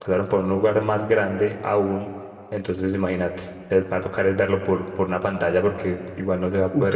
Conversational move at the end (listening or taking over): taking over